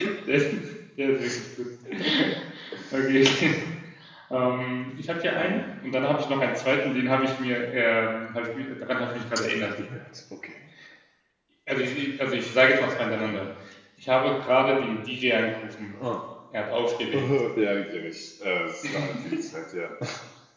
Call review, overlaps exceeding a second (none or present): none